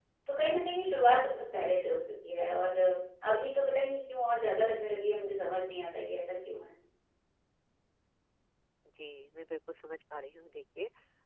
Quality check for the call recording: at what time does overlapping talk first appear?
none

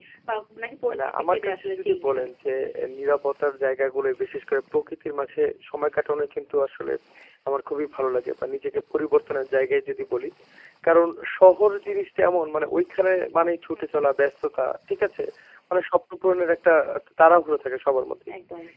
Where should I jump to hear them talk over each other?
1.0 s

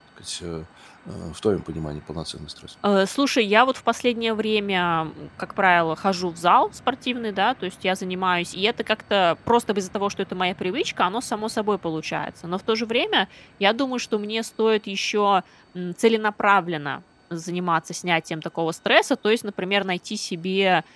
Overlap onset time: none

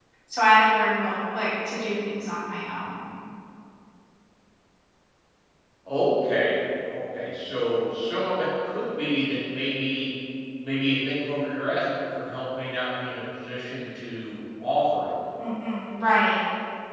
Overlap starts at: none

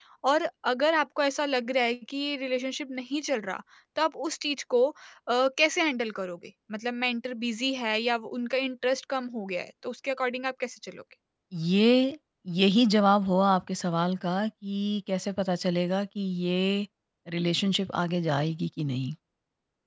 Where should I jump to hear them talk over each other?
none

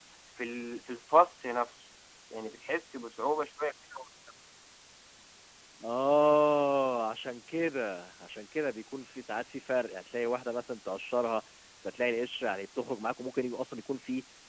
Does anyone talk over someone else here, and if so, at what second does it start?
none

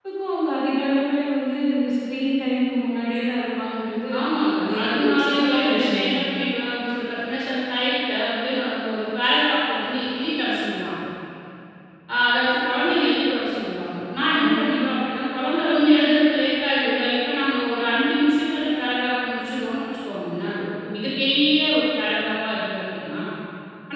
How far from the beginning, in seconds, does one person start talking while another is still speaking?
4.7 s

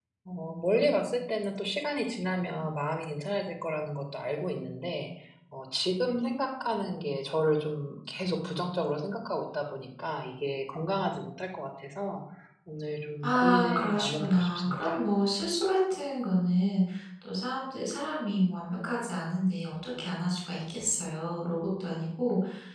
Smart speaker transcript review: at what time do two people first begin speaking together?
13.2 s

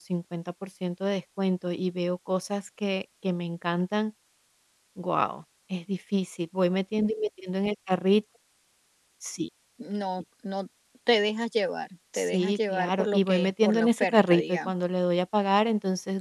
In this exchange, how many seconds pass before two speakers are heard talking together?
12.1 s

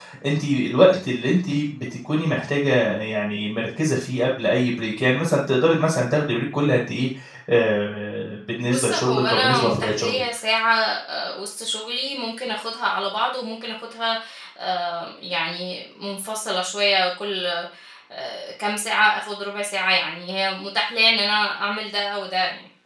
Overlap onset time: 8.6 s

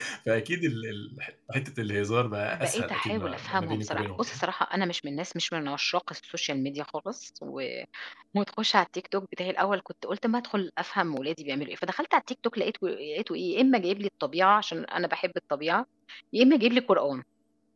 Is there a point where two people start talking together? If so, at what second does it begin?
2.5 s

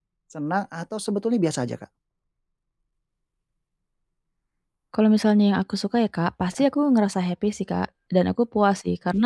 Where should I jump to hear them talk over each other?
none

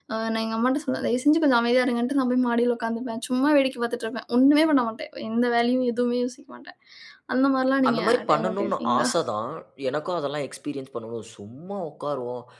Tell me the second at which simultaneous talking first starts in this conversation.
7.9 s

